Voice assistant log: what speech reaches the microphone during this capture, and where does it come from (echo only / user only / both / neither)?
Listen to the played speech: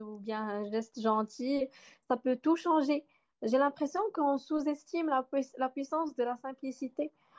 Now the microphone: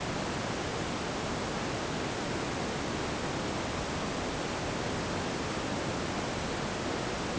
neither